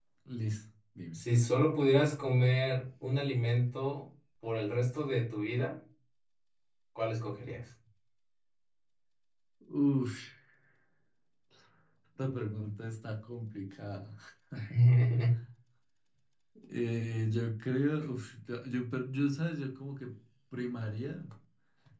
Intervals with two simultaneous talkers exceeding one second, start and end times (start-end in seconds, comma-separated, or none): none